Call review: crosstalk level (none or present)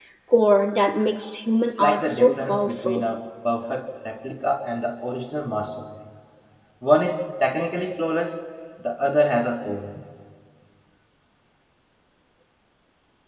present